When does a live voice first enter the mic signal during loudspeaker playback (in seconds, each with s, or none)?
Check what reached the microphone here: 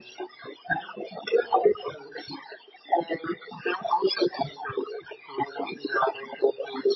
none